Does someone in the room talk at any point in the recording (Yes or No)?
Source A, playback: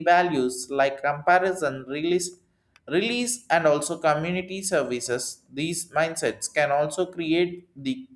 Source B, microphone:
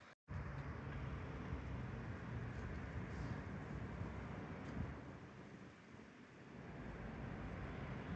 No